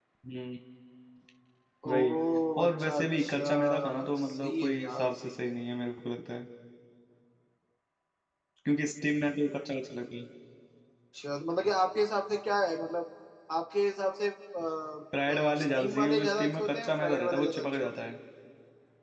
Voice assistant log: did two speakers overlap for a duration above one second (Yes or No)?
Yes